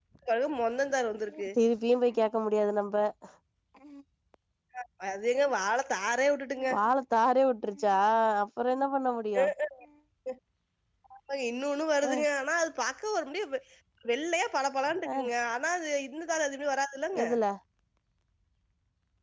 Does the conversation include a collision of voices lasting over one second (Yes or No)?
No